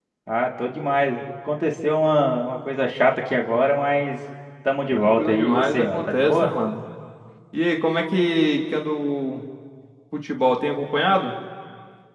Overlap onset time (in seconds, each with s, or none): 4.9 s